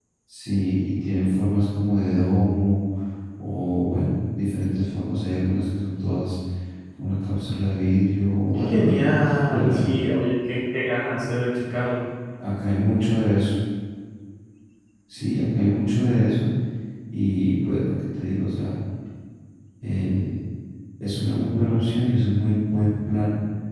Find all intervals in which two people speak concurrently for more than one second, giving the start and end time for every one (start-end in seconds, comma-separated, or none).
8.5-9.8